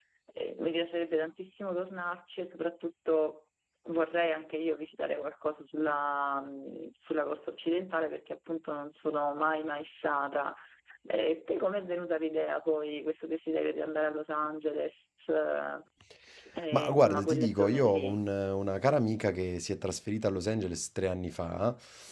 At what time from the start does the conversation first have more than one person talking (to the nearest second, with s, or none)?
17 s